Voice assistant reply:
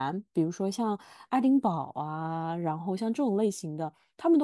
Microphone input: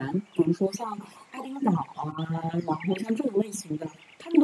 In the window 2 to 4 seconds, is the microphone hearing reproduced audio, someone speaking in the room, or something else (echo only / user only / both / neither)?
echo only